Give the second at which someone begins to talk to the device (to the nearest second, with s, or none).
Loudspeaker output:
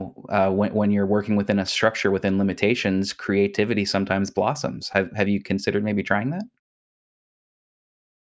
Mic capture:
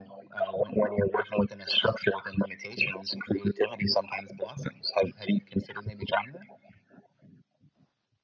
none